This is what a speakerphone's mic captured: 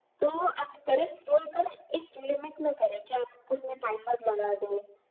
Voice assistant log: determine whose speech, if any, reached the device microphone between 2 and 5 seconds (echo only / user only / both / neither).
echo only